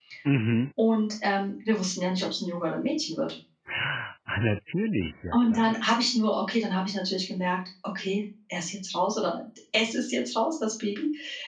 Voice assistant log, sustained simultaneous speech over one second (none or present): none